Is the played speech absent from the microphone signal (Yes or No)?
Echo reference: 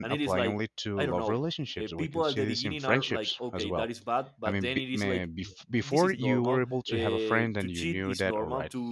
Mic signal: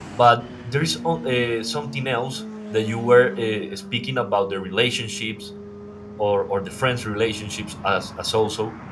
Yes